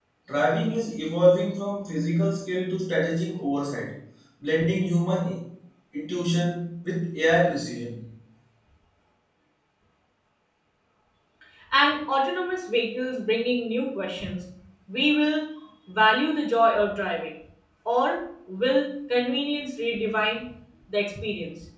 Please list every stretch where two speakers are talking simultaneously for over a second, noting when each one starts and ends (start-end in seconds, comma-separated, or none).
none